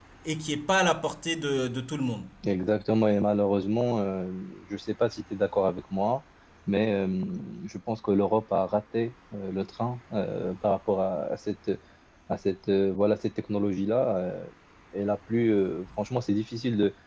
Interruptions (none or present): none